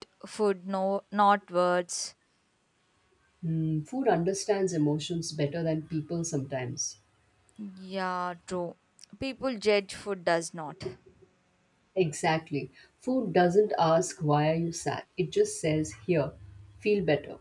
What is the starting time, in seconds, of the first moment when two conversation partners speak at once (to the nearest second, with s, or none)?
none